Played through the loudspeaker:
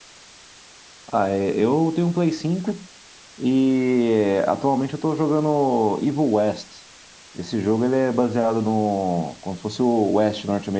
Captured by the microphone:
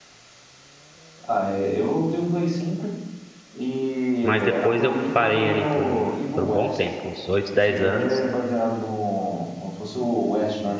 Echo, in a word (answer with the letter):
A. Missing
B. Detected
B